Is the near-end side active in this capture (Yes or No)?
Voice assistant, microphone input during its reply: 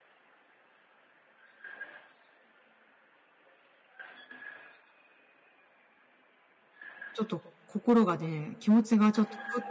Yes